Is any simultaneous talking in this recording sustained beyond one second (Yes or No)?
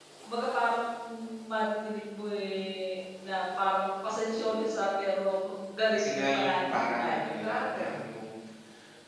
Yes